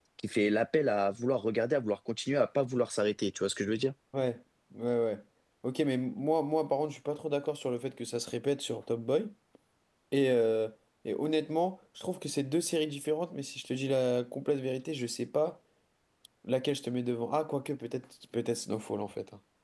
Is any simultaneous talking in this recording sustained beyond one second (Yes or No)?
No